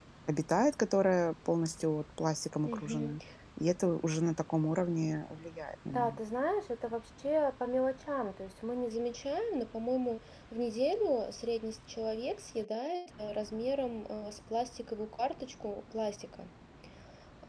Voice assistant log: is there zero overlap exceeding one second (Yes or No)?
Yes